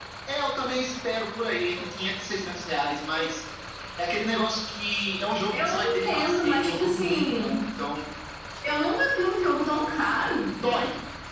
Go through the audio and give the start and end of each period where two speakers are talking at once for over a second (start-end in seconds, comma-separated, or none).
5.6-7.6